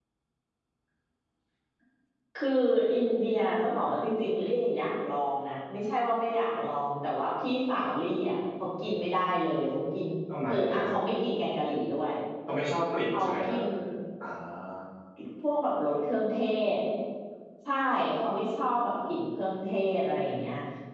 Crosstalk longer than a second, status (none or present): none